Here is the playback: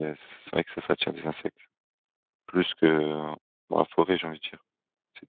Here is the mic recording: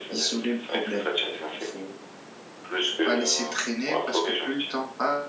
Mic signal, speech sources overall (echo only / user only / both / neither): both